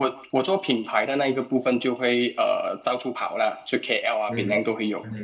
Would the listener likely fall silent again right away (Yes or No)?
No